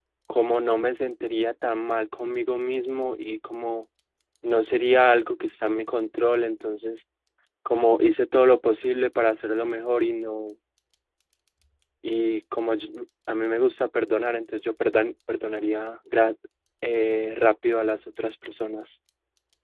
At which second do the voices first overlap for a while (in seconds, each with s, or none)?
none